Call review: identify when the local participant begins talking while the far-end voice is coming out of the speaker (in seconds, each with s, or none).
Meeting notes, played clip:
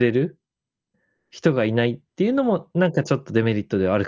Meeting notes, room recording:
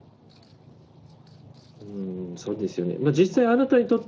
1.8 s